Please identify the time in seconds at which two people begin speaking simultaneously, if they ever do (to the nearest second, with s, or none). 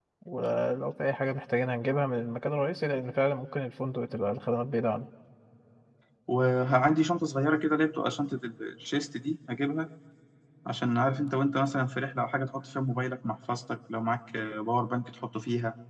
none